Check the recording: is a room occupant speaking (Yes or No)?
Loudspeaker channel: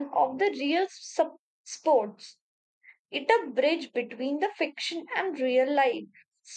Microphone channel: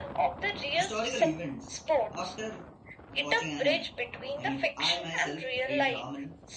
Yes